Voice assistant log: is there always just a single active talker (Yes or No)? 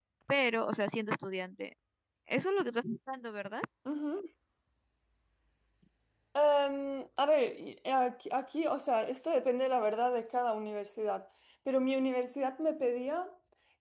Yes